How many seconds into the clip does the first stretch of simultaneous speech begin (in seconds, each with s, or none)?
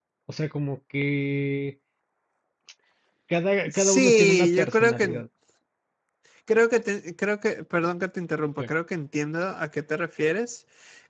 3.7 s